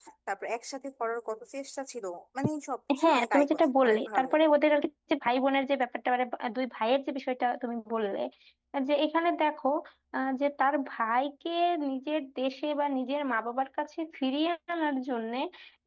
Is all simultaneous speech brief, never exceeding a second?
No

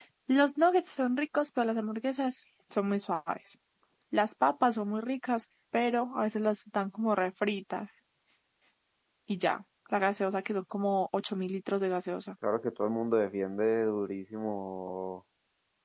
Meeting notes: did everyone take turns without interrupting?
Yes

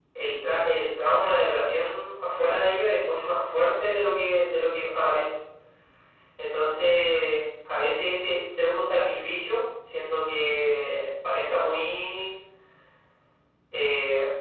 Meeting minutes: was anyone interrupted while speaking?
No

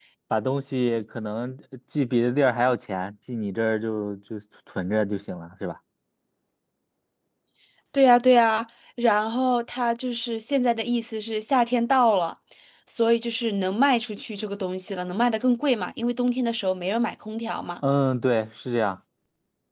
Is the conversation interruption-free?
Yes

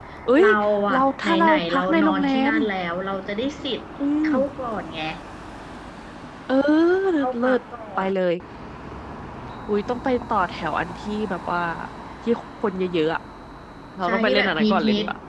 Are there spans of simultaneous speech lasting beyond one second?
Yes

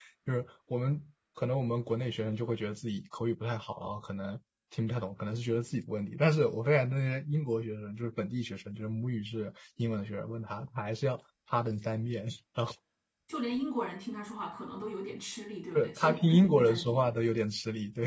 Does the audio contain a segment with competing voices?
Yes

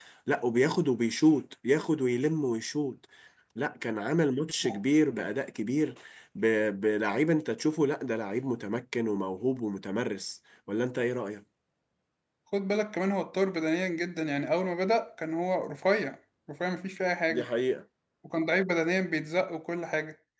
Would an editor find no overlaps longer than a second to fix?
Yes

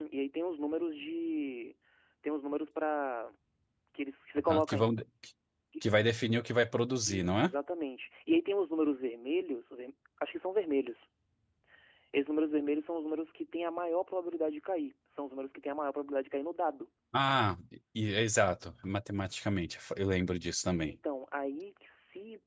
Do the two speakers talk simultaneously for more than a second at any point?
No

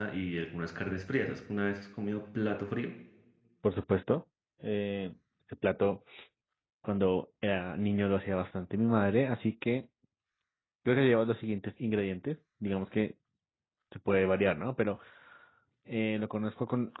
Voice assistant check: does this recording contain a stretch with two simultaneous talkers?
No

